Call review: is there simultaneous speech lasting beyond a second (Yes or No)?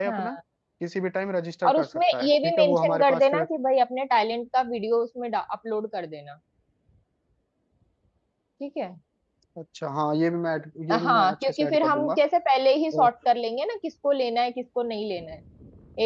Yes